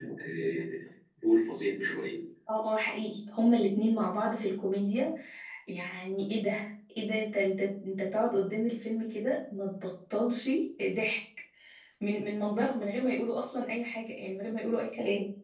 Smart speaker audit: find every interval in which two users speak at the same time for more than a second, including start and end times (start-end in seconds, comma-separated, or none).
none